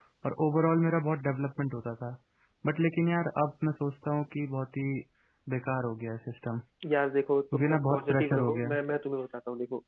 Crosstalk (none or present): present